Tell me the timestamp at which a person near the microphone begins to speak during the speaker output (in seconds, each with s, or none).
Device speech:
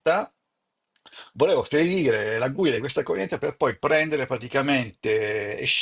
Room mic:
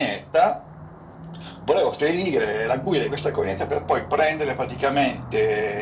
none